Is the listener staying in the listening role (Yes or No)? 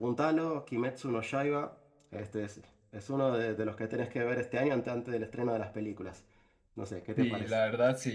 No